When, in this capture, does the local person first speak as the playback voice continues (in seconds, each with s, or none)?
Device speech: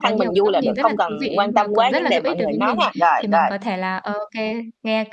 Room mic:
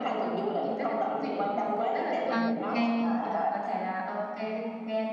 2.3 s